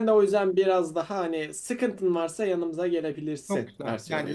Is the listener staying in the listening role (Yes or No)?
No